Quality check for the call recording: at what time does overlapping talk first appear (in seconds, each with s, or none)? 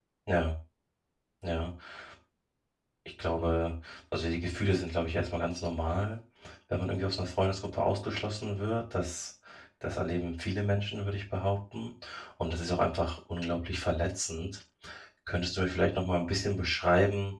none